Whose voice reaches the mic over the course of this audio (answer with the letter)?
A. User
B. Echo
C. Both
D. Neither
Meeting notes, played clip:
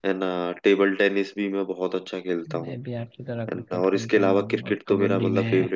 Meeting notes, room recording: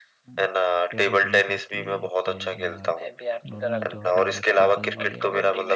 C